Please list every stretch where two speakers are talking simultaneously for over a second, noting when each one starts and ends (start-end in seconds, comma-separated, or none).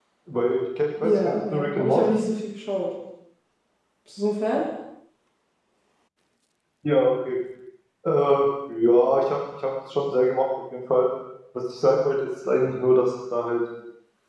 1.0-2.3